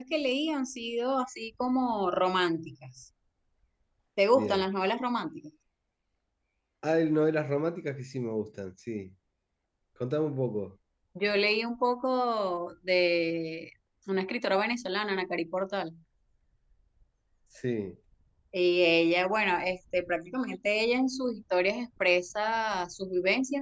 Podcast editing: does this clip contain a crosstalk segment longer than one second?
No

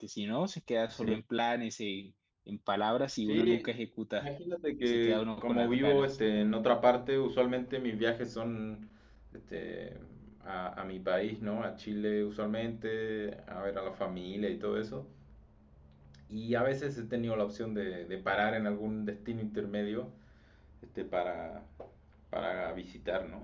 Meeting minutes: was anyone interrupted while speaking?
Yes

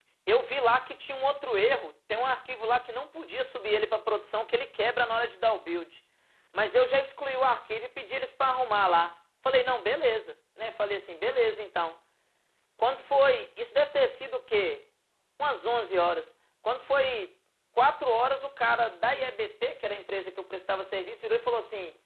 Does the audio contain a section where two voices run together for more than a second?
No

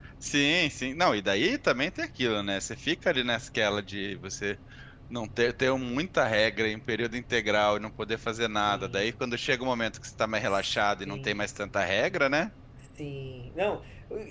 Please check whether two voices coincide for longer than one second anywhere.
No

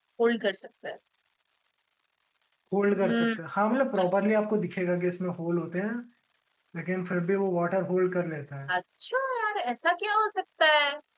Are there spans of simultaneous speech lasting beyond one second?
No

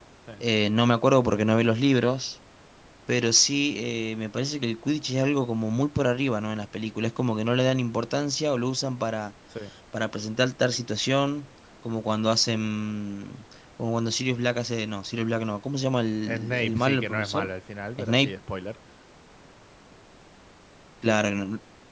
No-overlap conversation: No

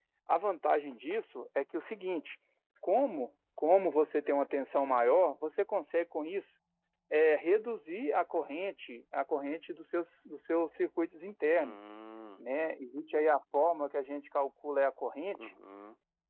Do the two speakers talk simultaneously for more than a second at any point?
No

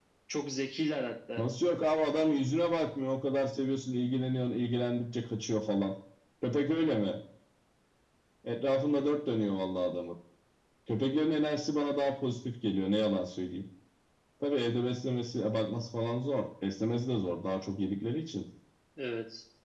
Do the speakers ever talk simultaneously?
No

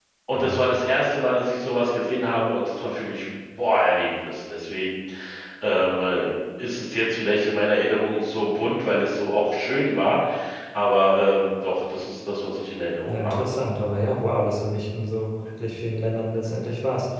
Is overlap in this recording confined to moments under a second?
Yes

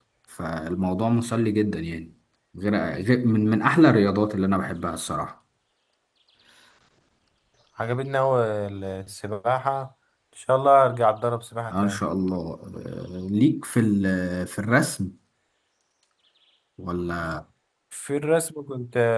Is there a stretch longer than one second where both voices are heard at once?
No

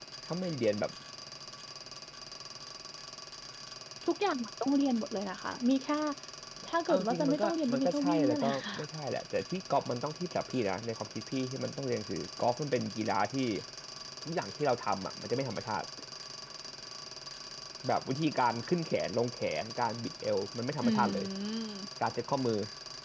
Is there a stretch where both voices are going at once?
Yes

